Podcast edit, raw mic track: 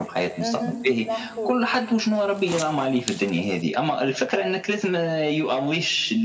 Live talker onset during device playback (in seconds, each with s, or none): 0.4 s